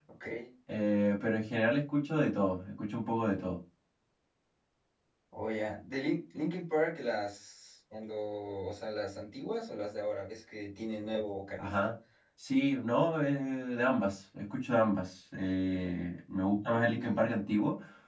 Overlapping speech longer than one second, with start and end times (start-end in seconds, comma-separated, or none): none